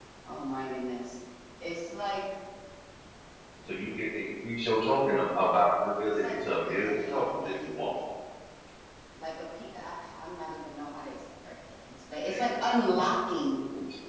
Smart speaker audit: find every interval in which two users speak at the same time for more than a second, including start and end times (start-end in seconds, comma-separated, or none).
6.0-7.9